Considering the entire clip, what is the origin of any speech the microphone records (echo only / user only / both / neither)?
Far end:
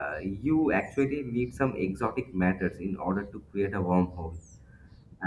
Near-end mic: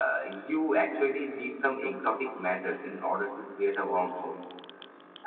echo only